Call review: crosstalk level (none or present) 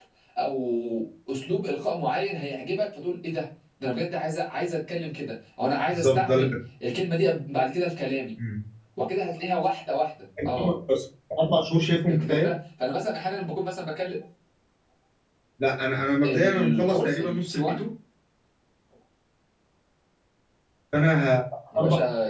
present